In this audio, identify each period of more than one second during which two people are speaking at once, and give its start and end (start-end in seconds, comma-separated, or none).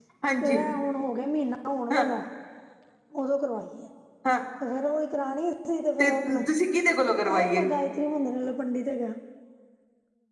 none